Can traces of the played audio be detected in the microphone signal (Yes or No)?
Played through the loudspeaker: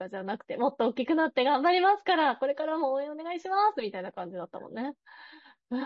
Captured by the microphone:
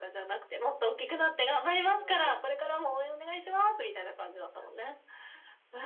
Yes